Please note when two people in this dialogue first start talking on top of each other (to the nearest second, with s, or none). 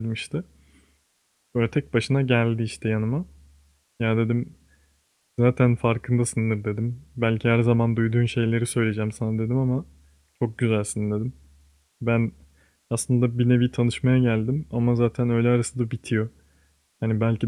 none